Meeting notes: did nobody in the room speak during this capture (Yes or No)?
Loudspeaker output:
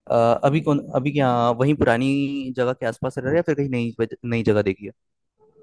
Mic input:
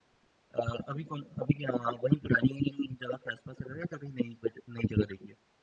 Yes